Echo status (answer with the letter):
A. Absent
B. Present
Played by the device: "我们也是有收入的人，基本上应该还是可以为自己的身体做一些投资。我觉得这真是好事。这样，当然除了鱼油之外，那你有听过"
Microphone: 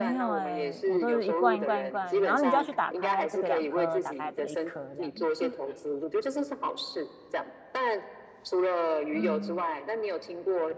B